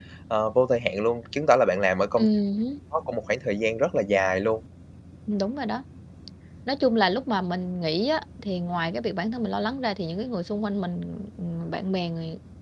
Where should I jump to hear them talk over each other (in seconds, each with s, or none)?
none